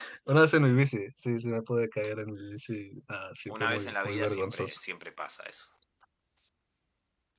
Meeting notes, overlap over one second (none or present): present